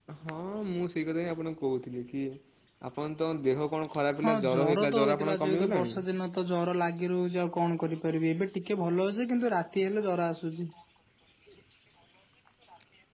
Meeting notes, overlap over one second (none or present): present